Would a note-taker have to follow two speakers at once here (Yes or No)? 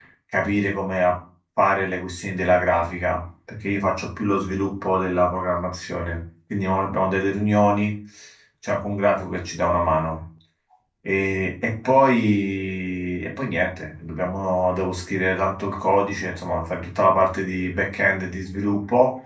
No